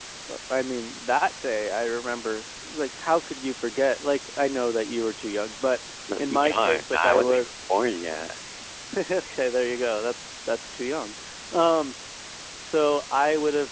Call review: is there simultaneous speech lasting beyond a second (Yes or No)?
Yes